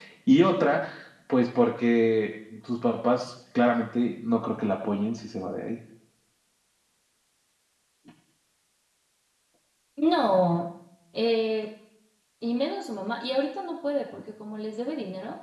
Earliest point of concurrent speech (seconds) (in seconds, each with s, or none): none